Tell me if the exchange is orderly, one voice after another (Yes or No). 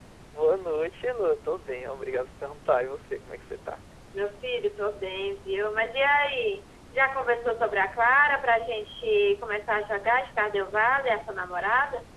Yes